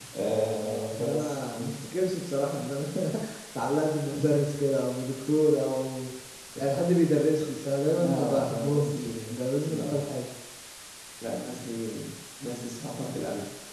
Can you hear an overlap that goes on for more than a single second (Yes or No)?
Yes